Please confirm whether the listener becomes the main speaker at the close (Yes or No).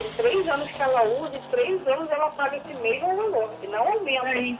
No